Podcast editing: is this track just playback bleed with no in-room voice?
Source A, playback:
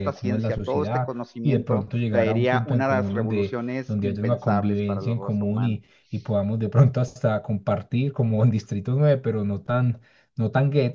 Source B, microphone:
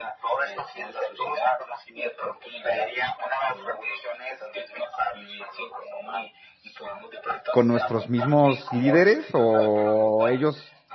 No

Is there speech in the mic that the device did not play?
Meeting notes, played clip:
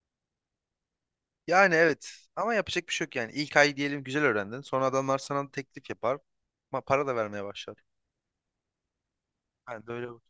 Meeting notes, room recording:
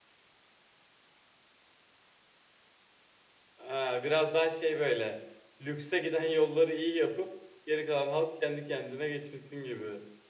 Yes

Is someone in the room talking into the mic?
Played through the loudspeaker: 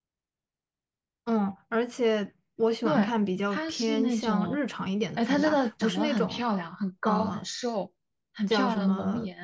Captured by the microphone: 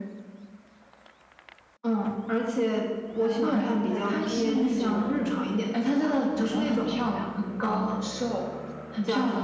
Yes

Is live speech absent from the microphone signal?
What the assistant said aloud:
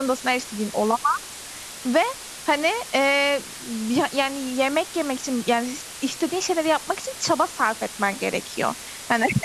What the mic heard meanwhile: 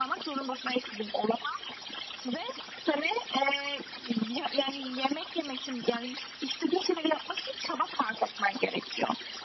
Yes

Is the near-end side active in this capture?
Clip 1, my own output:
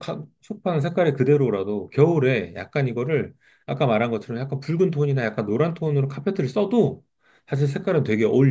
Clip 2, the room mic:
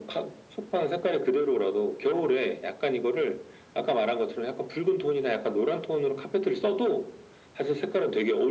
No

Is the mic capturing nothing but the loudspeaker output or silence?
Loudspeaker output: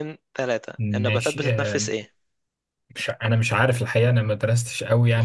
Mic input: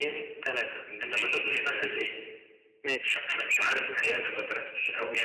No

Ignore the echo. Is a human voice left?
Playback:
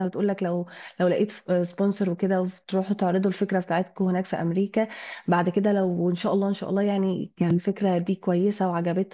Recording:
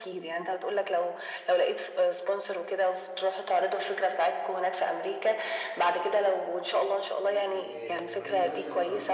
Yes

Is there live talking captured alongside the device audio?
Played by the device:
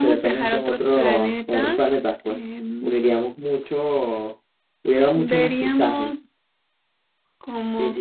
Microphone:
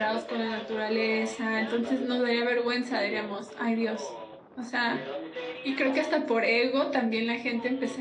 Yes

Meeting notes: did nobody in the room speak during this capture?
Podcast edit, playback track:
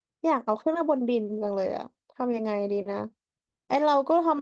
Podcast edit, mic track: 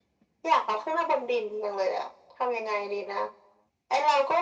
Yes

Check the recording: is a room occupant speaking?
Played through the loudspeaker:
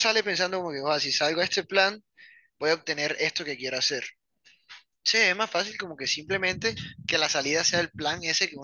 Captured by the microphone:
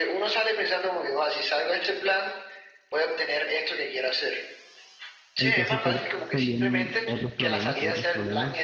Yes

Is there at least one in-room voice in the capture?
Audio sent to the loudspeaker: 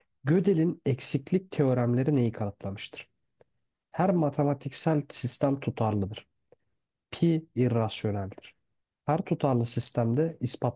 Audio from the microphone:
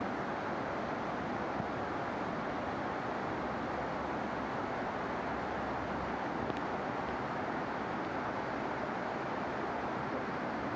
No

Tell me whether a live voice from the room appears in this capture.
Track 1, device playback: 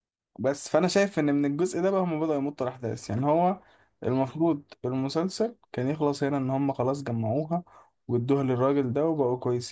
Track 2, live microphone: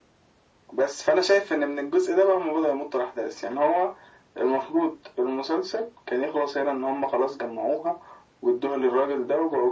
No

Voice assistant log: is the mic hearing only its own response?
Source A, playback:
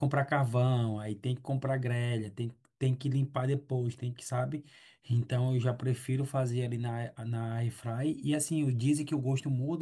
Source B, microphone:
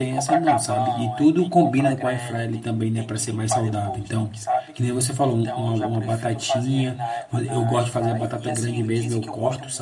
No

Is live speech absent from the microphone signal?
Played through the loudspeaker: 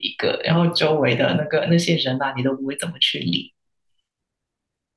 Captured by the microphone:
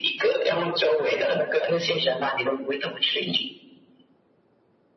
No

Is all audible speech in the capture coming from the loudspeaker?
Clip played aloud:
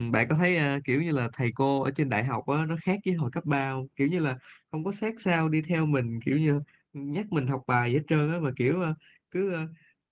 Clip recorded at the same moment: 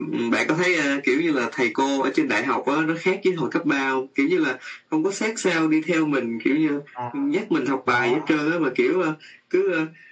No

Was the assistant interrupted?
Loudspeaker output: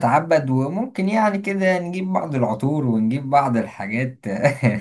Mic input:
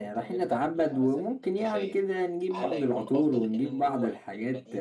Yes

